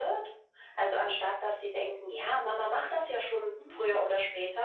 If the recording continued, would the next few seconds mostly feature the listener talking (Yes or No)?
No